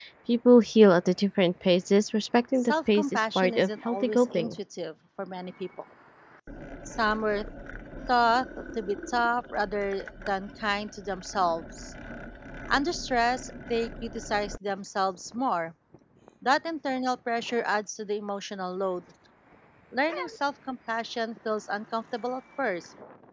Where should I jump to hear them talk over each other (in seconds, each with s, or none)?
2.5 s